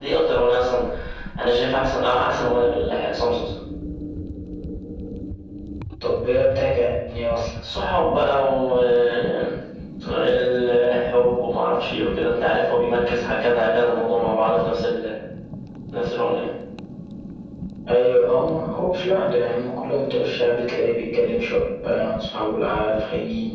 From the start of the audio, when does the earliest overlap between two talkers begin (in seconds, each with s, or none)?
none